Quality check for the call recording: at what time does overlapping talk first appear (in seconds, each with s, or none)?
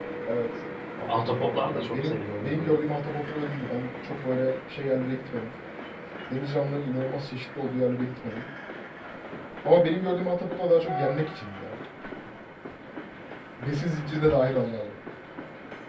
1.1 s